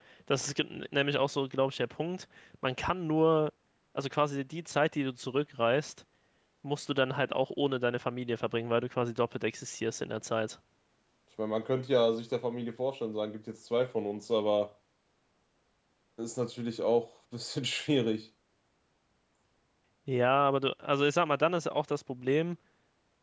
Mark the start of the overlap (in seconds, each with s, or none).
none